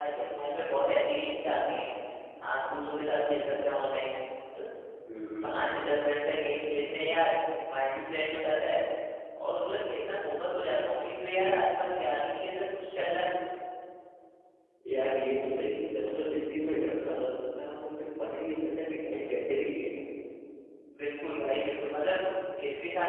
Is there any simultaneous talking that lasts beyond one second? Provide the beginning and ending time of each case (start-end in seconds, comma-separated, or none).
none